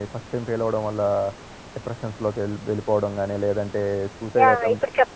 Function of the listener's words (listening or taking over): taking over